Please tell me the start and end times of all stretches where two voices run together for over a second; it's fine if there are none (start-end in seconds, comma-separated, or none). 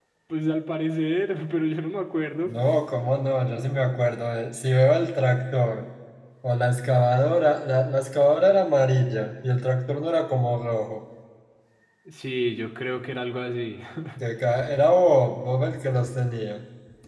none